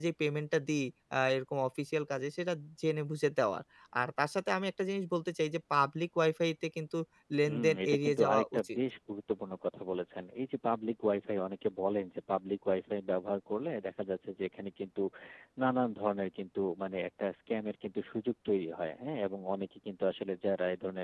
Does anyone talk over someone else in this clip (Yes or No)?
Yes